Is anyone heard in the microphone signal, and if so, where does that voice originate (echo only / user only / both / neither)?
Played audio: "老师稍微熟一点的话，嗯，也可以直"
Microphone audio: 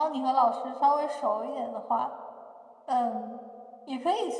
echo only